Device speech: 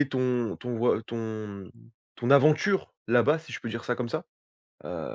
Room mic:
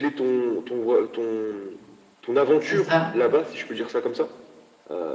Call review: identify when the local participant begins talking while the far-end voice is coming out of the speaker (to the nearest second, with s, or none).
3 s